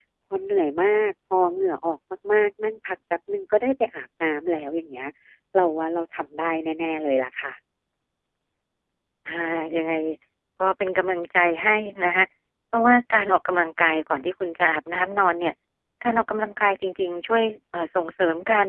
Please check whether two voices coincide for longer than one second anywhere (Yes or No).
No